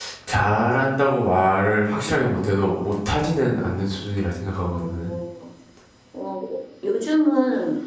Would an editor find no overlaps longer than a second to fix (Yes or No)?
Yes